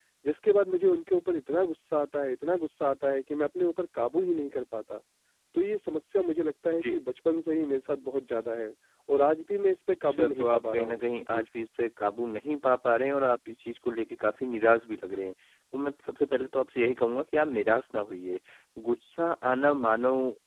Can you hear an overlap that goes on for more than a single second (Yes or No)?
Yes